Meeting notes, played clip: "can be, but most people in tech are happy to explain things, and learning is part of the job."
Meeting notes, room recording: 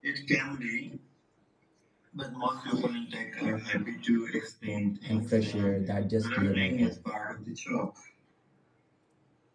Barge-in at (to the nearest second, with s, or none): 5 s